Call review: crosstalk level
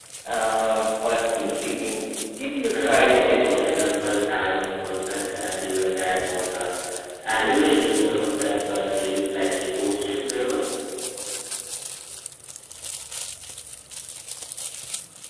present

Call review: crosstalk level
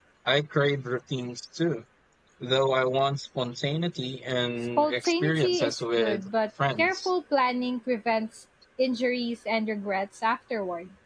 present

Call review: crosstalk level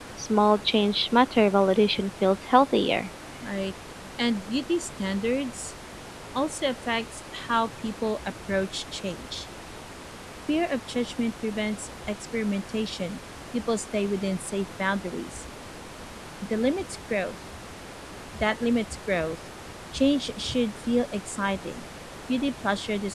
none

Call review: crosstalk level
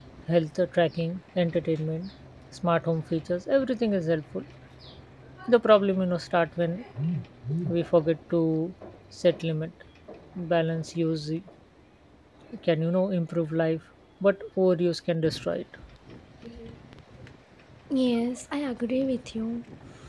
none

